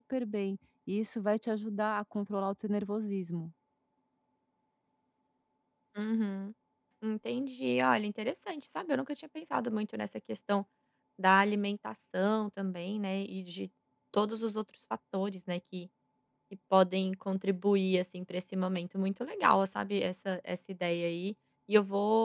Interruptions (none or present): none